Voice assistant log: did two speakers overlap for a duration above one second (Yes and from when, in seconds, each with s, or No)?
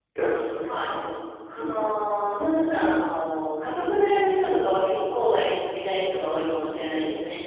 No